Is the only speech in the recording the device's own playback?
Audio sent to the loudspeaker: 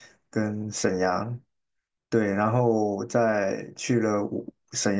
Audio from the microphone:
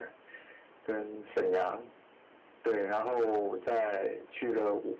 Yes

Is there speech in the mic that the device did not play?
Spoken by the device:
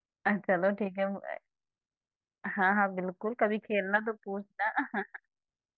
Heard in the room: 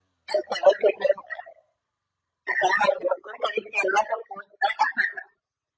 No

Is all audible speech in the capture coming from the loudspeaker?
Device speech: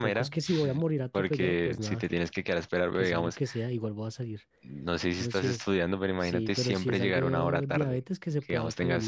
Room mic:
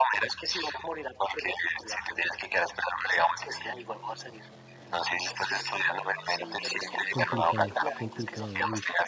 No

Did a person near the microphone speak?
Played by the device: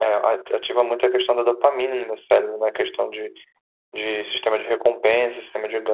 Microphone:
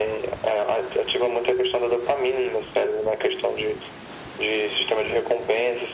No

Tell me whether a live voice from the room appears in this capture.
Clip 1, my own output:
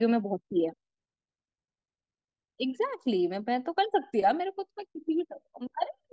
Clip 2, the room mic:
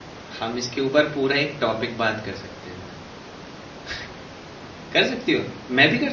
Yes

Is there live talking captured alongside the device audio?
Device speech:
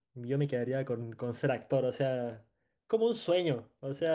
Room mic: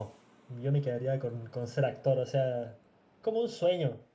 No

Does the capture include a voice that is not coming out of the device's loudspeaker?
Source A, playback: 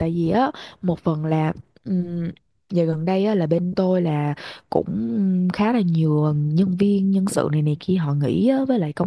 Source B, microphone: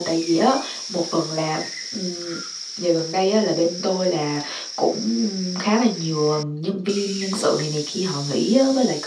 No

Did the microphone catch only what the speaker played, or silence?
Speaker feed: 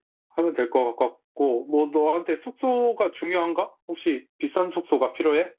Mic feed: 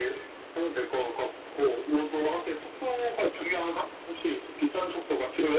Yes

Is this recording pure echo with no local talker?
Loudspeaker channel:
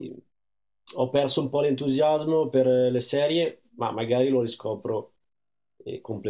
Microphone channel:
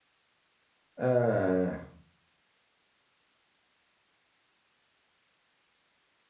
No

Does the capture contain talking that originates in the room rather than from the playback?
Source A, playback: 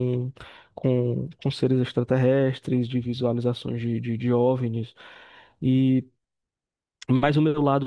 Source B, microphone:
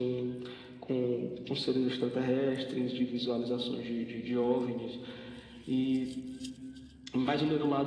No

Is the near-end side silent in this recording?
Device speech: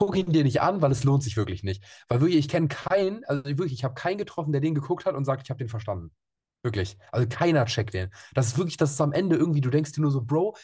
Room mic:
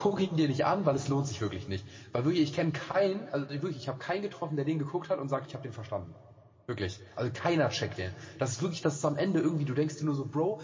Yes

